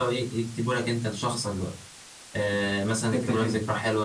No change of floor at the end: Yes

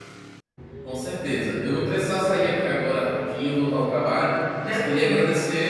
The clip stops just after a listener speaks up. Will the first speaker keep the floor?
Yes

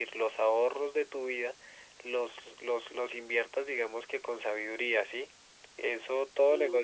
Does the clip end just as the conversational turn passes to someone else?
No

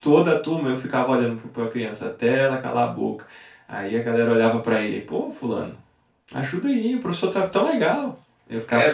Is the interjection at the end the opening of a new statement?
Yes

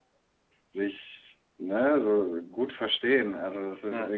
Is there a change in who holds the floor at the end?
No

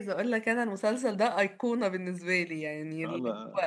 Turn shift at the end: No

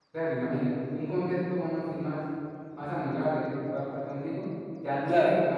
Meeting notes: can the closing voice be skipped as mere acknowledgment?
Yes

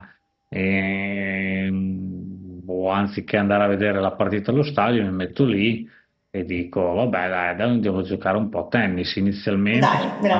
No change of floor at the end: Yes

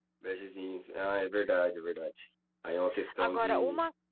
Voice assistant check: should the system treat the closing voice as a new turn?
Yes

